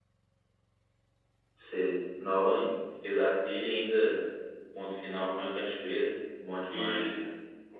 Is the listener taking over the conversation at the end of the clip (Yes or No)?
Yes